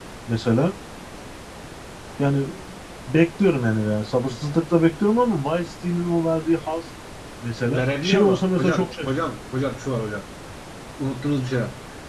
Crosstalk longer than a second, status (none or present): present